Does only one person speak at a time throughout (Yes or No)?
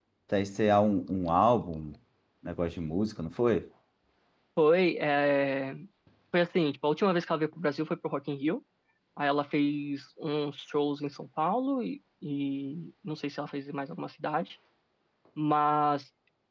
Yes